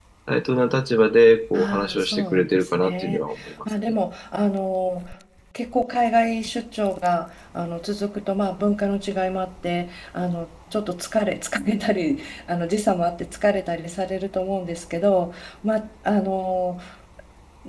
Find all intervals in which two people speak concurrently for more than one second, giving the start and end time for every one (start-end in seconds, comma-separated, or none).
1.5-3.2